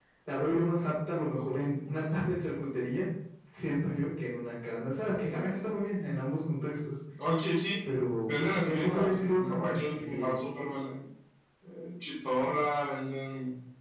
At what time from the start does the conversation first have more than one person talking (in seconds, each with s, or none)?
8.3 s